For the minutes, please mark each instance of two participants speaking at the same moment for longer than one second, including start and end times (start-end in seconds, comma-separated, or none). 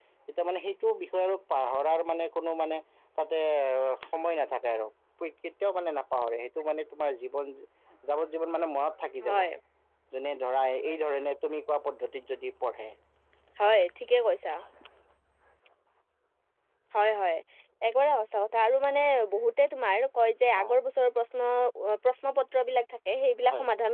none